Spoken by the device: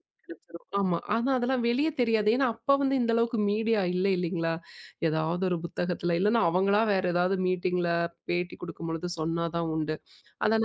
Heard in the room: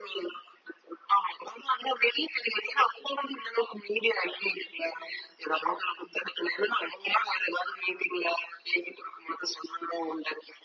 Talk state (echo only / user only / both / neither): echo only